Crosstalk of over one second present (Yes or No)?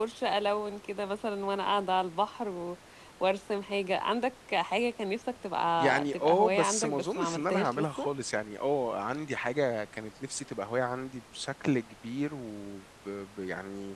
Yes